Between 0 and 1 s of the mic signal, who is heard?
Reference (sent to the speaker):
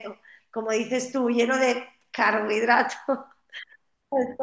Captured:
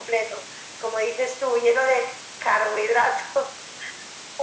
echo only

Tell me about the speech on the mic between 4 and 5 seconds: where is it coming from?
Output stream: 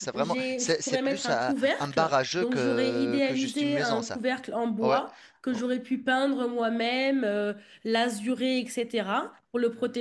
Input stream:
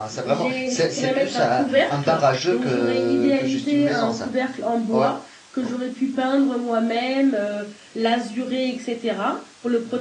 echo only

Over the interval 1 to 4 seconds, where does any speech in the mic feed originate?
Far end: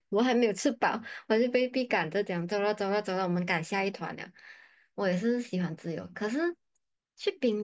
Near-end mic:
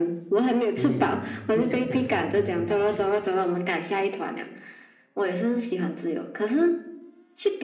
both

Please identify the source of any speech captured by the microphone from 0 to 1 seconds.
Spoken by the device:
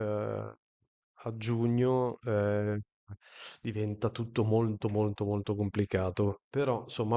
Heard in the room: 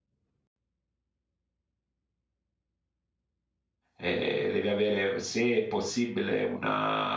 neither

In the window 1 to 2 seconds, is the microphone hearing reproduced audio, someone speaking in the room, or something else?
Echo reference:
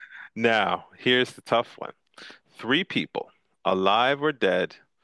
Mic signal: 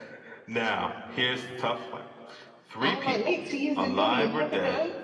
echo only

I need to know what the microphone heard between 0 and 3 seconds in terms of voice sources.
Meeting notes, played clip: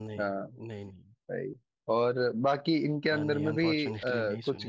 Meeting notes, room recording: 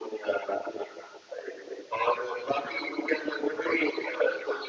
echo only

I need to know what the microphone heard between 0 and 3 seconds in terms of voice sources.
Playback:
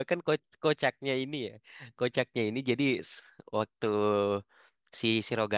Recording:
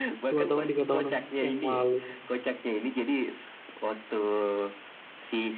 both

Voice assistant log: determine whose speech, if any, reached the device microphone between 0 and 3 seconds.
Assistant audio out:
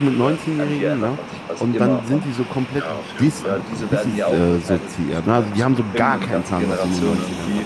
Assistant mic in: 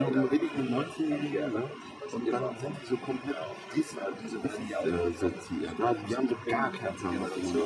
echo only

